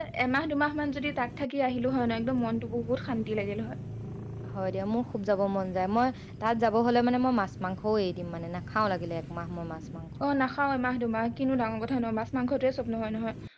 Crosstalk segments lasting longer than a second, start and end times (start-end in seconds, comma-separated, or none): none